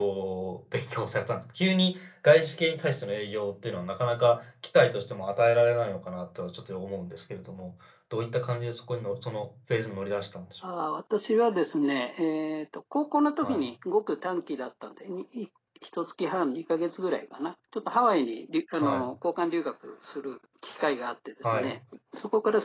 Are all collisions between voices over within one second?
Yes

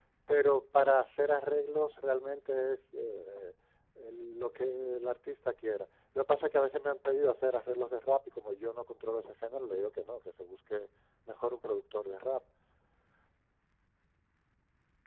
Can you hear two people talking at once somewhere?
No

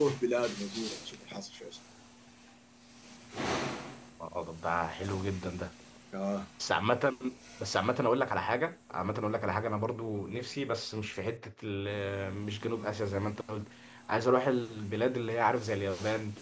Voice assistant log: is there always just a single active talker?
Yes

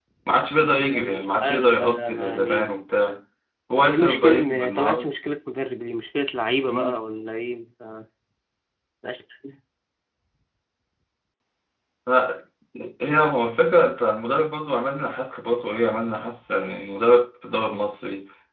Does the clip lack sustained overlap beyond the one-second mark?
No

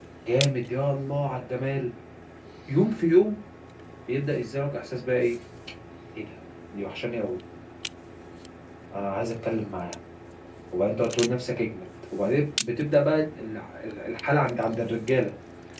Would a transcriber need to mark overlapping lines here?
No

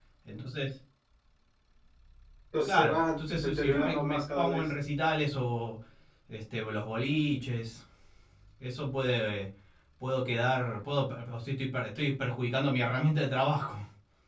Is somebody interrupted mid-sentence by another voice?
Yes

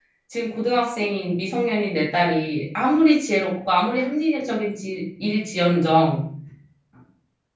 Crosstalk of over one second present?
No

